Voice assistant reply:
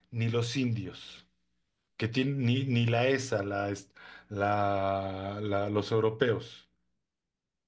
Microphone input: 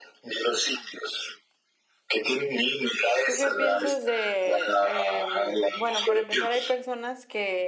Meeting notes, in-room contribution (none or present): present